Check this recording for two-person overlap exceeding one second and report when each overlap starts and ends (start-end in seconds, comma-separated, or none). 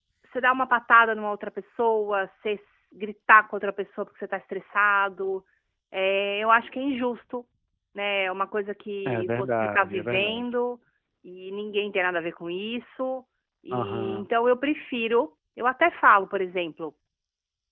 9.1-10.5